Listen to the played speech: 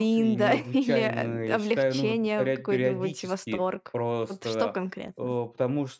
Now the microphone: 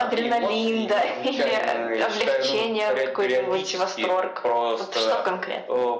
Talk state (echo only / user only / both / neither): echo only